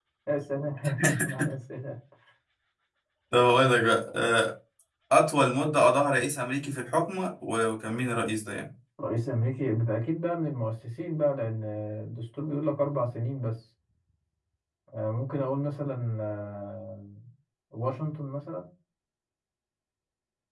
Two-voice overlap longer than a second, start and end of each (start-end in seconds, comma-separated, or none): none